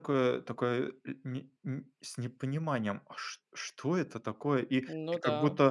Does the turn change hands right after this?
No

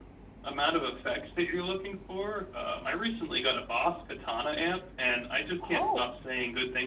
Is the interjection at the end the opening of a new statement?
No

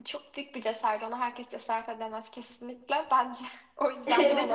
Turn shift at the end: Yes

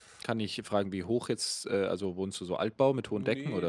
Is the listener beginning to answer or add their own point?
Yes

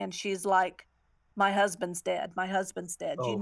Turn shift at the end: No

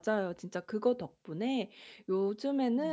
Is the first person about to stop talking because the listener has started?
No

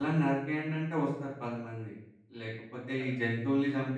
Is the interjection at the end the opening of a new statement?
No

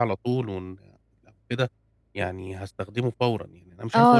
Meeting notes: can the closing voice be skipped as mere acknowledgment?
No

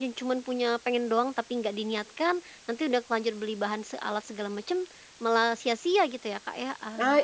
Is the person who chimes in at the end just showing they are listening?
No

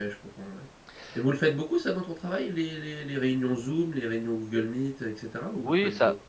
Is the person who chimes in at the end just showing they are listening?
No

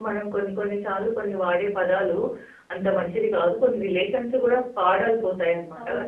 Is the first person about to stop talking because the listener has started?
Yes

